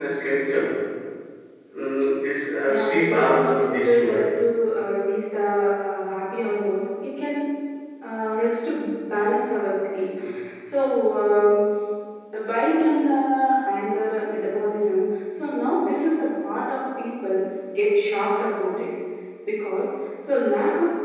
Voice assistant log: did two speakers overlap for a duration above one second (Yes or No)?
Yes